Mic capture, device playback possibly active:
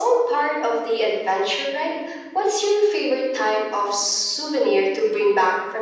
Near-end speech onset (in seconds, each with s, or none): none